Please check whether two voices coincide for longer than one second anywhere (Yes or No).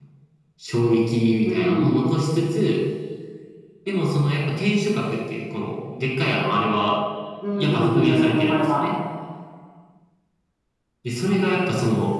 Yes